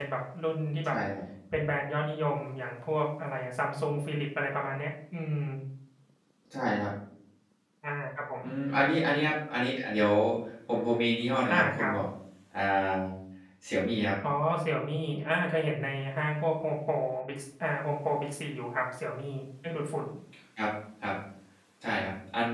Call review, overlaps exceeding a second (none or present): none